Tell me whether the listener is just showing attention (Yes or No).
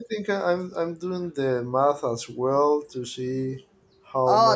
No